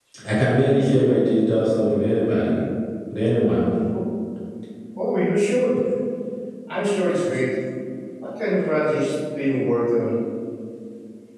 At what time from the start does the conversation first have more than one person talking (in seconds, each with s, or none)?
none